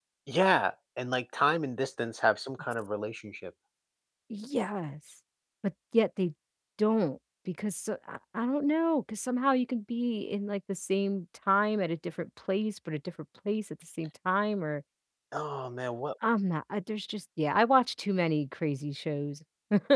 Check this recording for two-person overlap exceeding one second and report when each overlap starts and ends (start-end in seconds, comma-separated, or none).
none